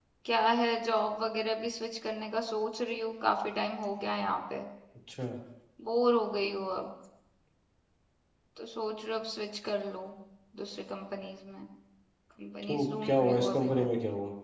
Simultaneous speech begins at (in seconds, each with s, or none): 12.6 s